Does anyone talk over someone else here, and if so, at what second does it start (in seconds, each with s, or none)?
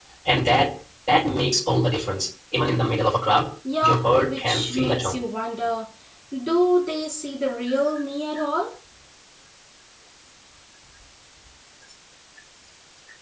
3.6 s